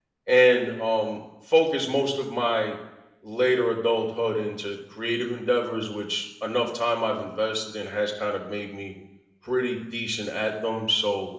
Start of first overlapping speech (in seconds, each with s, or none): none